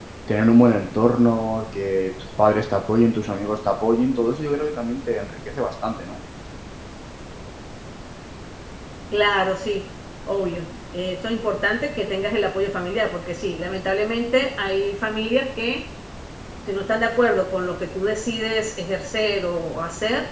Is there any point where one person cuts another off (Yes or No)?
No